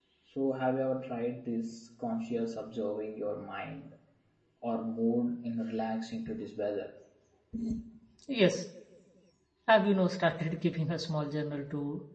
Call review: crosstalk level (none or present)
none